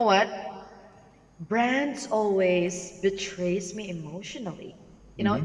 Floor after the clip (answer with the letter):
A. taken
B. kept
B